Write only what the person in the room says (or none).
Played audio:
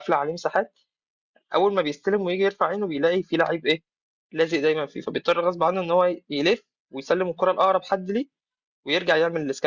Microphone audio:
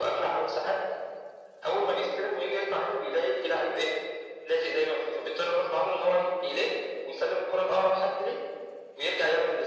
none